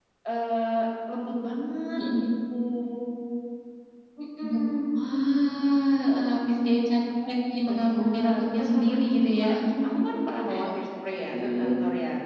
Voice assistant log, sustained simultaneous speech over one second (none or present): present